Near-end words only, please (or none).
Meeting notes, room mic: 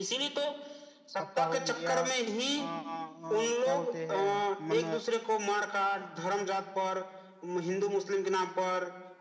आपका हो गया अ, अ, क्या बोलते हैं मन